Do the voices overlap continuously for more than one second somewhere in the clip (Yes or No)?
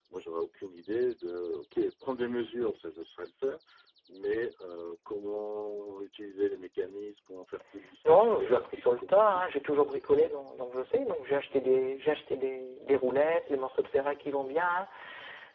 Yes